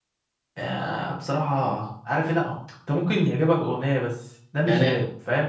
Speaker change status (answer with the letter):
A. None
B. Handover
B